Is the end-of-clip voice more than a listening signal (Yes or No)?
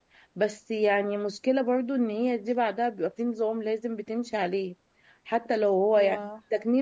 No